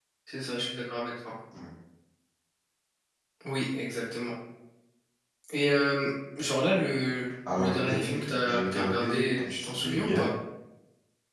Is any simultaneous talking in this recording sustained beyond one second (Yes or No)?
Yes